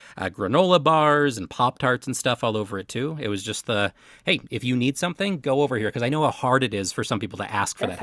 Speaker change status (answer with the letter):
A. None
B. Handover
B